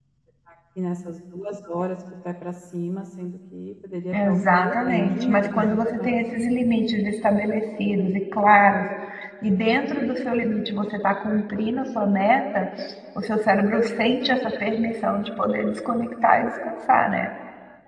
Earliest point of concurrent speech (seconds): 4.1 s

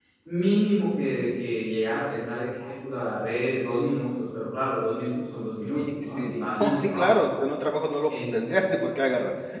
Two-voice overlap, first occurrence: 5.8 s

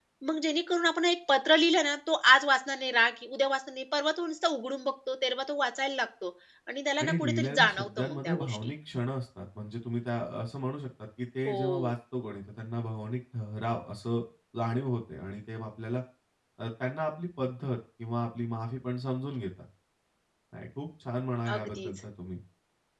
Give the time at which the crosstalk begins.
7.0 s

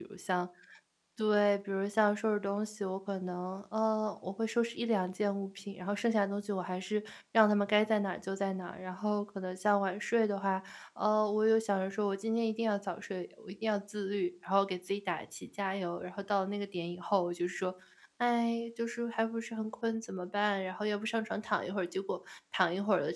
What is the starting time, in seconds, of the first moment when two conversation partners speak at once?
none

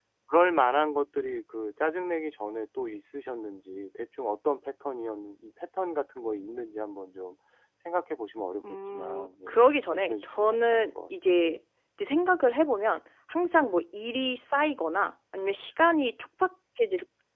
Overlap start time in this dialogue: 8.6 s

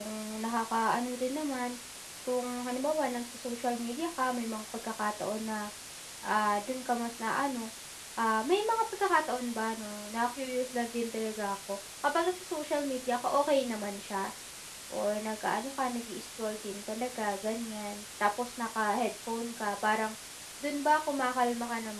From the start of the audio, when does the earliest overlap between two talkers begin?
none

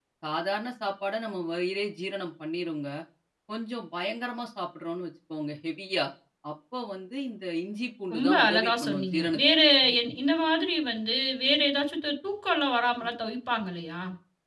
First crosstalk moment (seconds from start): 8.1 s

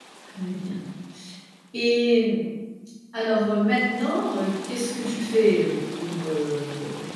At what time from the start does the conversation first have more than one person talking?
none

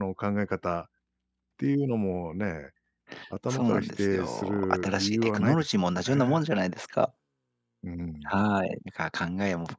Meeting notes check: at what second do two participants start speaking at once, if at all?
3.5 s

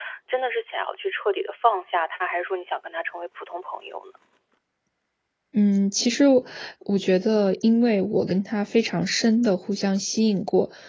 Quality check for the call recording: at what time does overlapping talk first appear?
none

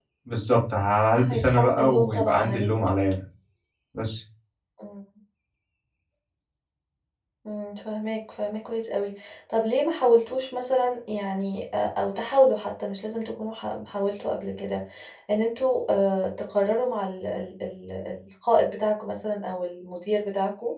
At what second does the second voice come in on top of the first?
1.2 s

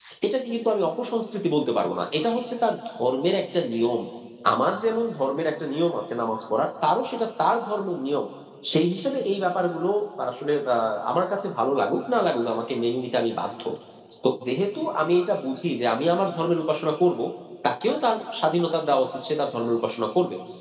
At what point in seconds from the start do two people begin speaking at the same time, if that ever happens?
none

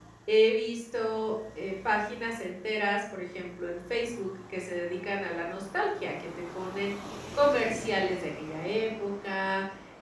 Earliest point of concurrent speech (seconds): none

